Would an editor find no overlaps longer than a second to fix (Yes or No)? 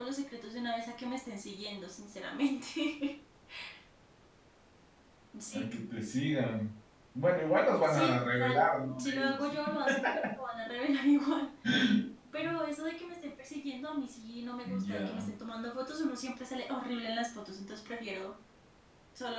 No